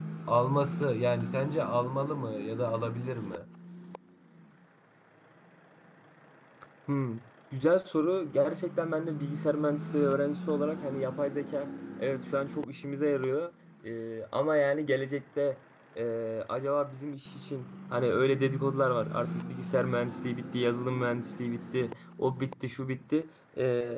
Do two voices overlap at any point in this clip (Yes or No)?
No